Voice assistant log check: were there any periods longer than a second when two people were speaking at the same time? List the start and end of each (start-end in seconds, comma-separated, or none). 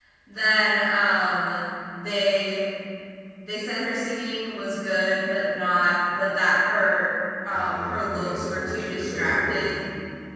7.5-9.7